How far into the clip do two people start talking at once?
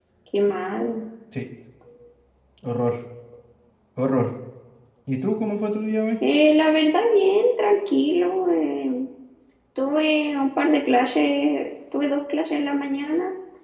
none

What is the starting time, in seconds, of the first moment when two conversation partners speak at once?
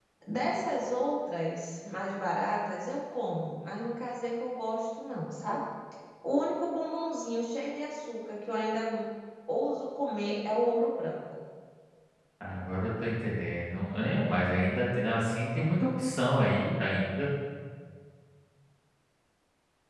none

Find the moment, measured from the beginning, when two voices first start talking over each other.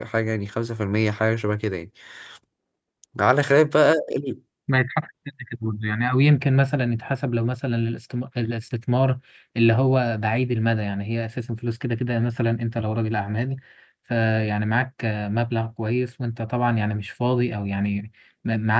none

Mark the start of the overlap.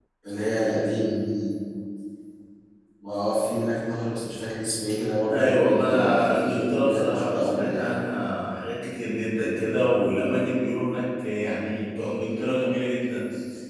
5 s

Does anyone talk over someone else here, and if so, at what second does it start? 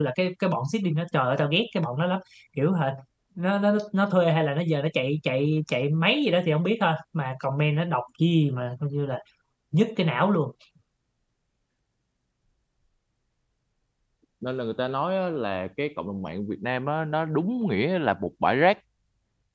none

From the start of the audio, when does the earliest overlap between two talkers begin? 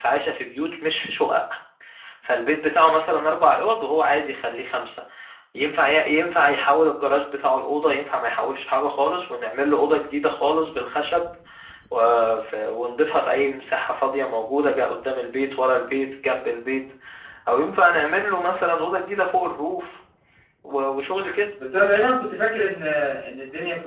none

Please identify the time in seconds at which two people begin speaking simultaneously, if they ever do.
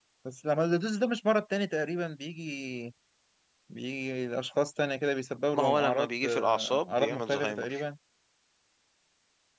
6 s

